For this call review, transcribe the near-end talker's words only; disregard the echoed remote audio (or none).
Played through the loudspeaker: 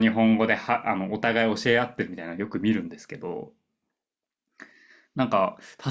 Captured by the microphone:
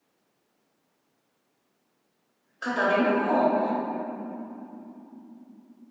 方でも、